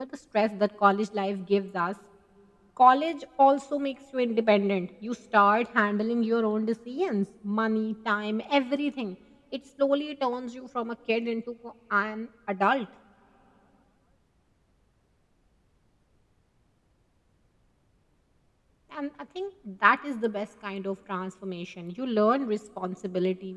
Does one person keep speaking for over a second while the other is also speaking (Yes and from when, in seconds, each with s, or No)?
No